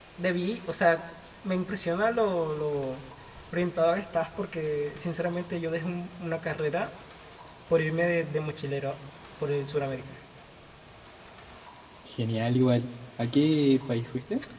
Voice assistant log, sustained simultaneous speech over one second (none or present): none